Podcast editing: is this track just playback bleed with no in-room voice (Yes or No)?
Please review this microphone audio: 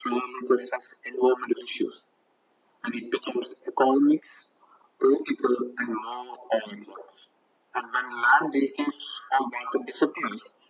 Yes